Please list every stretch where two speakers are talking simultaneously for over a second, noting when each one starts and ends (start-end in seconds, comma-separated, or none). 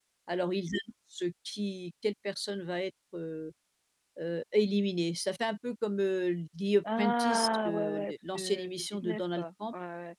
7.0-9.4